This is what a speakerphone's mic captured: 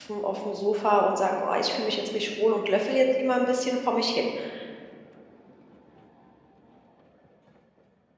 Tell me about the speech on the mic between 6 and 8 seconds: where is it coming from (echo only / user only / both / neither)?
neither